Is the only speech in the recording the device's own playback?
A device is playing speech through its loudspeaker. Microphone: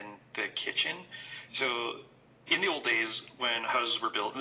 Yes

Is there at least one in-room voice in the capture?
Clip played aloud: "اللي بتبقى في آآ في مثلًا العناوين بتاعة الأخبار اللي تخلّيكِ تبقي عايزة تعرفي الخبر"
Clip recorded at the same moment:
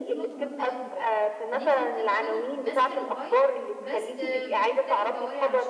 Yes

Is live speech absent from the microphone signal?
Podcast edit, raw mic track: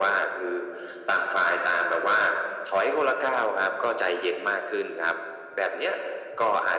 Yes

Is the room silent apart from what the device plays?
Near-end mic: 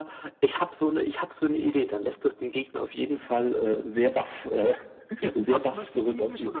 No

